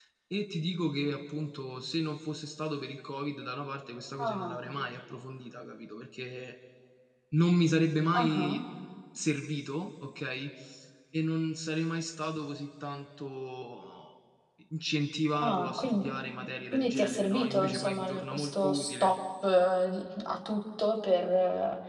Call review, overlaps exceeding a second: present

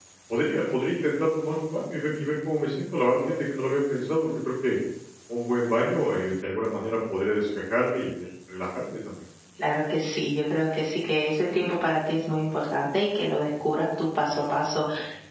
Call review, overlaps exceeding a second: none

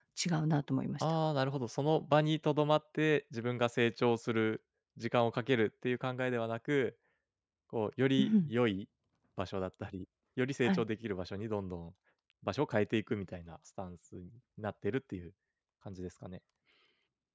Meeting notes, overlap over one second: none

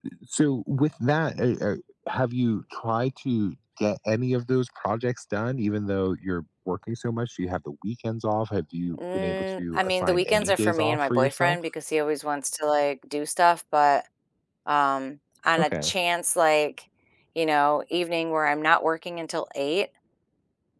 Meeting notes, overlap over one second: present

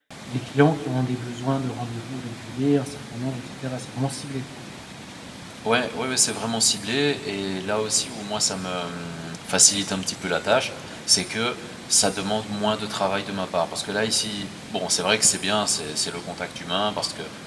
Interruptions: none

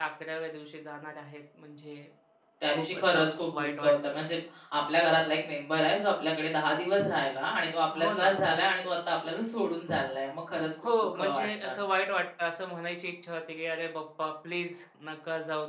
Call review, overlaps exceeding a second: present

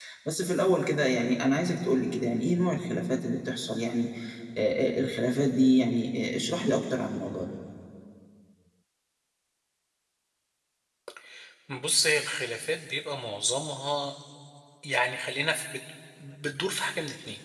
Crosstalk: none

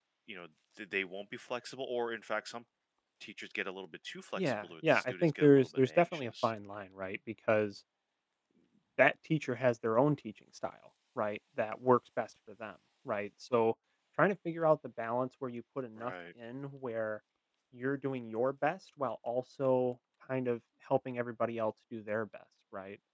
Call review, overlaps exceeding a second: present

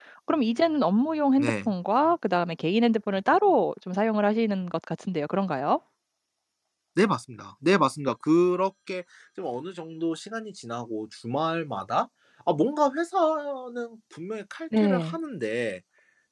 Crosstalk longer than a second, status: none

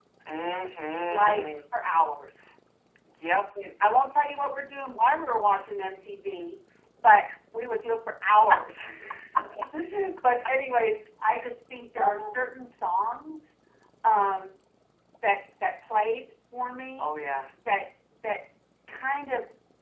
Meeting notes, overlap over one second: none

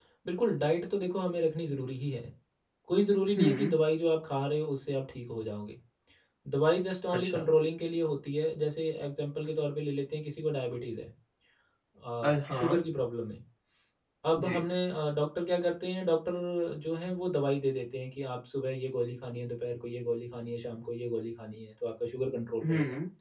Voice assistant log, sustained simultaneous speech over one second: none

